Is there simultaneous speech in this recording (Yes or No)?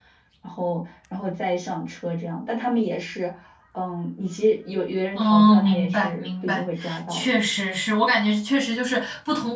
Yes